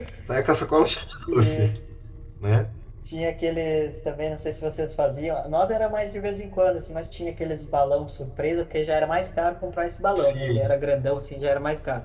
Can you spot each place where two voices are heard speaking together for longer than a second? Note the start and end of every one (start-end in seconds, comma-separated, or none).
none